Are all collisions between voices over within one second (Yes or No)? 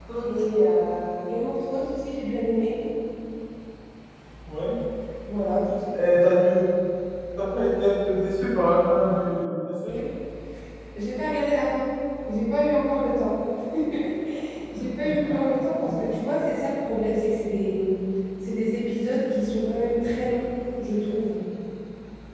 Yes